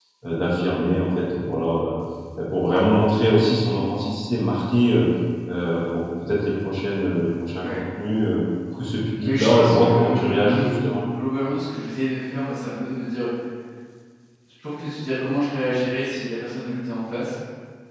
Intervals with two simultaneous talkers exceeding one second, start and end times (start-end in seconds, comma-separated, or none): 9.2-10.8